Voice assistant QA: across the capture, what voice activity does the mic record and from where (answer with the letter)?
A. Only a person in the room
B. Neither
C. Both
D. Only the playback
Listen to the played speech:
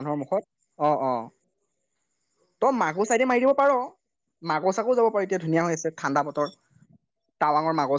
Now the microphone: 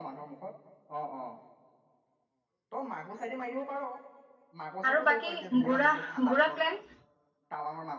C